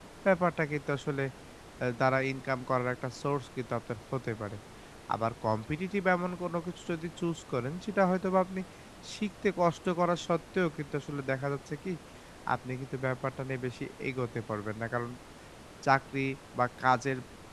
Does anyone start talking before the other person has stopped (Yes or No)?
No